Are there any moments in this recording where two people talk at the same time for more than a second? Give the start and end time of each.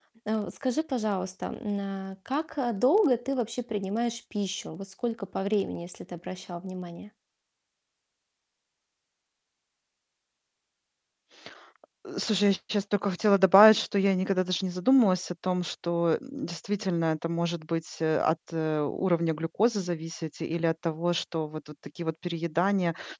none

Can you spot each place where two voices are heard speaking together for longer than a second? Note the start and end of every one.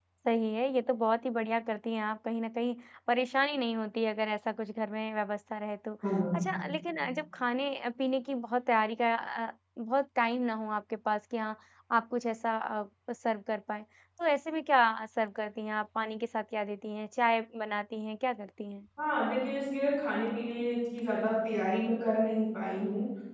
none

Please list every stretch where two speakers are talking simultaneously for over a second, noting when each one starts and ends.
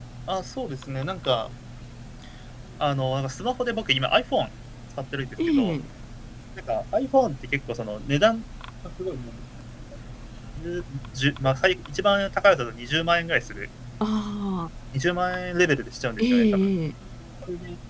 none

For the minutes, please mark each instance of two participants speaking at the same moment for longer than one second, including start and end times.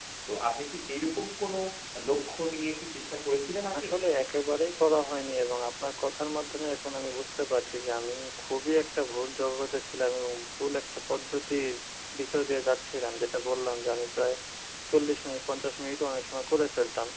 none

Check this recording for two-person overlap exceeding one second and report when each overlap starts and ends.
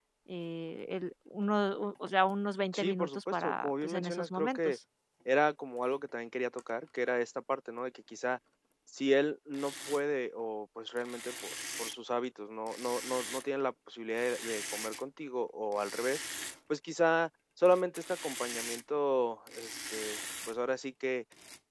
2.7-4.8

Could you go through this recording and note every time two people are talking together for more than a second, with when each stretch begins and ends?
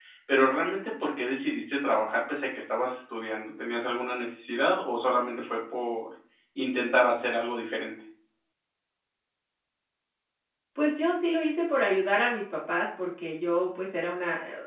none

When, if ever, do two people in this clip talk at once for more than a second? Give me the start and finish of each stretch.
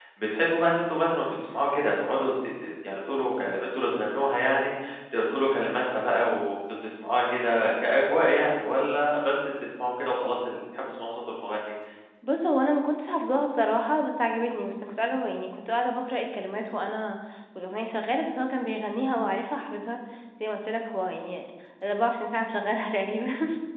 none

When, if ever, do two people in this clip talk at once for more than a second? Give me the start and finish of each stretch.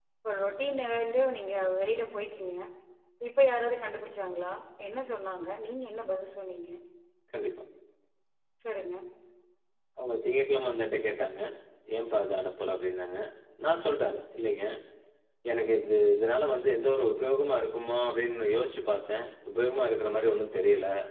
none

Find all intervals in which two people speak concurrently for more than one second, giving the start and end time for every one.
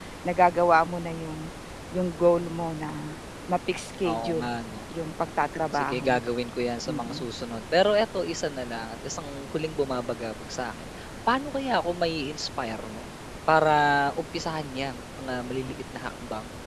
none

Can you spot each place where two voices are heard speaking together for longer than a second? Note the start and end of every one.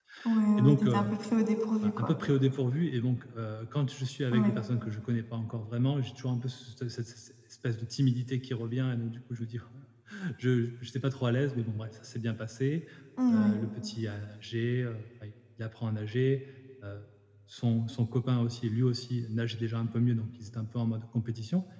none

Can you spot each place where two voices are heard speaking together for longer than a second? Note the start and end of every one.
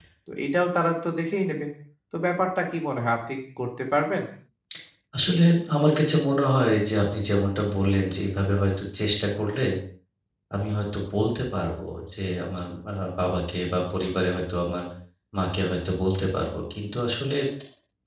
none

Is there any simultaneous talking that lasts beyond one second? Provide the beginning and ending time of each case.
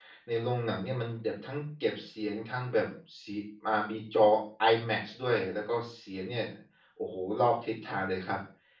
none

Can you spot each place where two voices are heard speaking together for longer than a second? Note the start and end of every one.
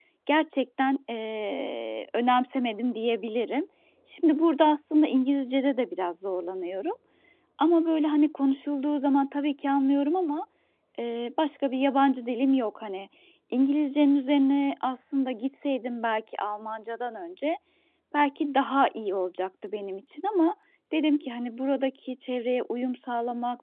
none

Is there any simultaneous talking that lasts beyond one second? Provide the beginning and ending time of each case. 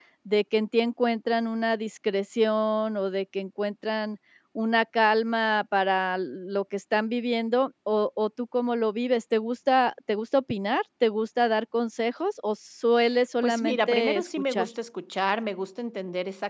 13.4-14.7

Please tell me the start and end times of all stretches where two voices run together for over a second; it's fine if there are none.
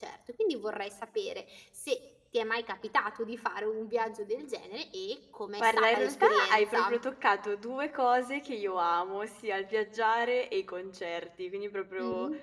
5.6-7.0

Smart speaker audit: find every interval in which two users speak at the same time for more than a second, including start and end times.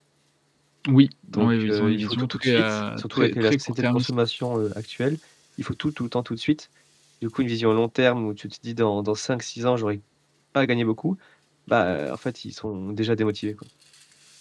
1.3-4.1

